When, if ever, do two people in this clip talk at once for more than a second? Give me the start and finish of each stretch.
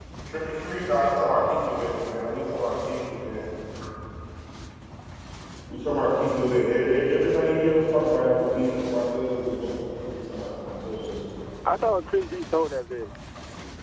none

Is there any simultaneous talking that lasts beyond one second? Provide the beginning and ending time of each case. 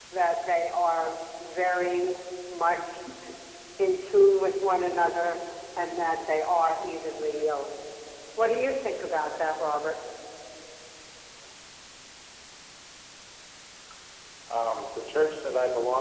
none

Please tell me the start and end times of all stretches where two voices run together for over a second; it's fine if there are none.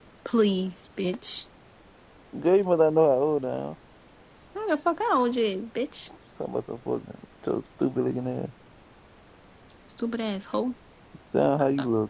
none

